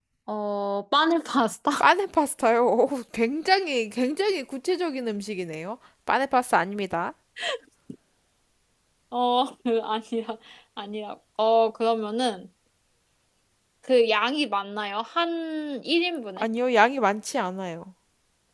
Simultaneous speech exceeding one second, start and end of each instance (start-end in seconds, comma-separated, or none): none